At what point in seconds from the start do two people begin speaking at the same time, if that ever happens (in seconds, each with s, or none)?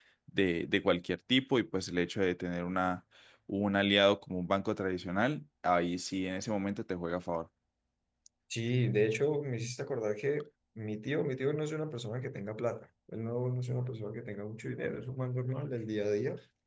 none